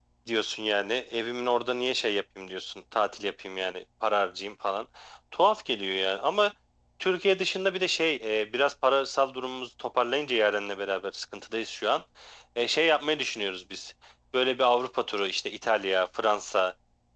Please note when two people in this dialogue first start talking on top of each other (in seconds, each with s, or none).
none